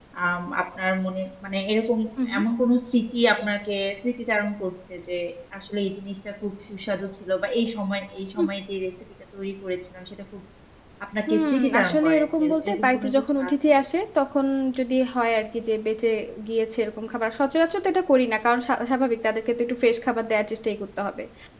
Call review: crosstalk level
present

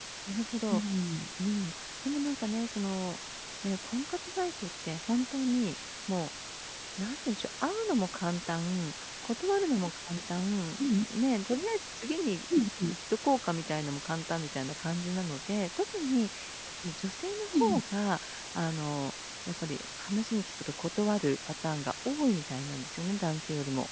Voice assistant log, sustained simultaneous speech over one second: none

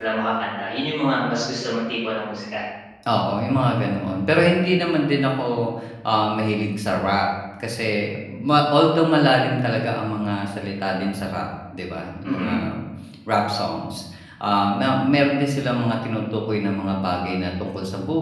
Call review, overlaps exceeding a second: none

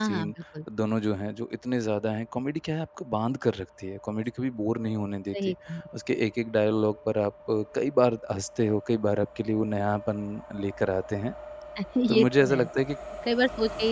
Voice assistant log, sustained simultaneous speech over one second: none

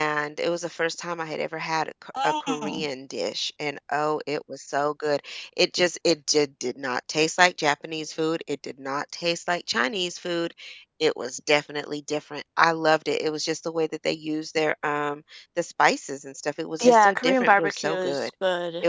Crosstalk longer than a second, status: present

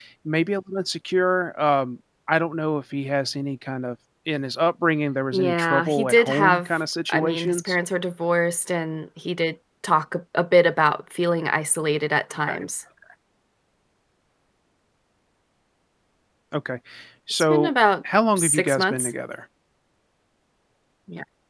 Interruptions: present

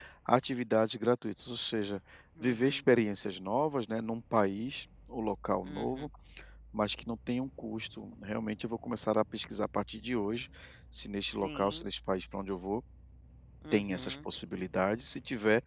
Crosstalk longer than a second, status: none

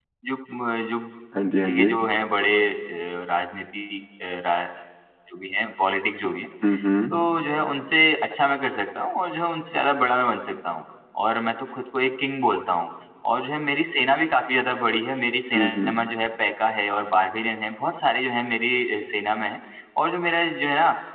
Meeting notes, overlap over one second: none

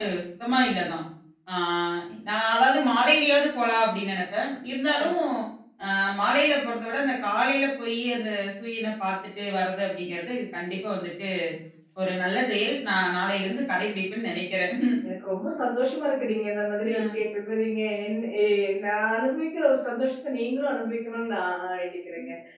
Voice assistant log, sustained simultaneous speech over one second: none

